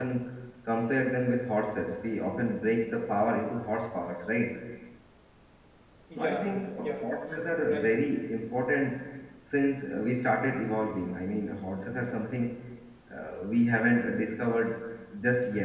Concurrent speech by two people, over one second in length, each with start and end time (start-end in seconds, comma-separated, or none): 6.2-7.9